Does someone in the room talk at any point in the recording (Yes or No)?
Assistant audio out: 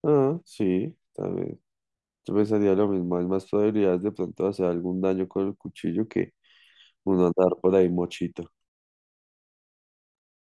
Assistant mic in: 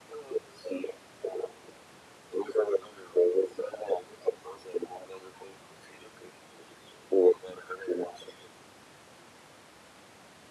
No